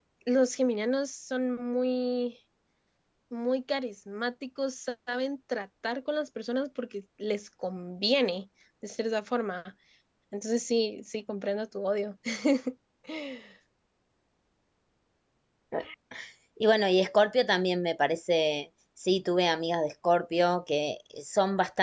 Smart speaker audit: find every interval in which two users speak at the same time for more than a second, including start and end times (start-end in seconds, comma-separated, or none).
none